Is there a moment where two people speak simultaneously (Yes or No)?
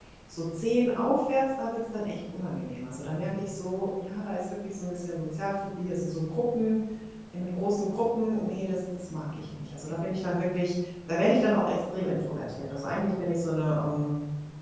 No